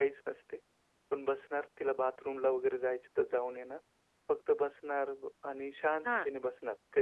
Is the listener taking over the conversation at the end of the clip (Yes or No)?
No